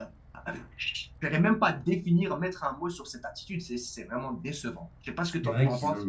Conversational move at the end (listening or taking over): taking over